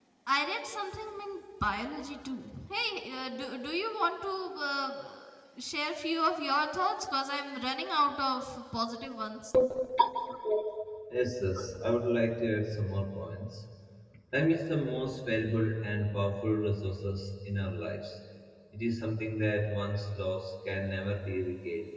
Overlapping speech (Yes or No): No